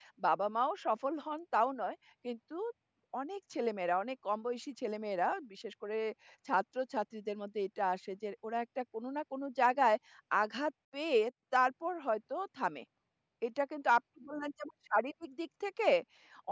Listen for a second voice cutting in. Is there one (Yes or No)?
No